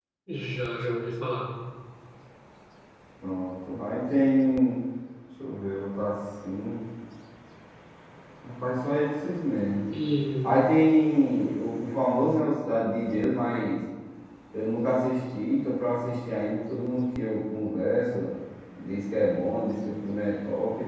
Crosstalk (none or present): none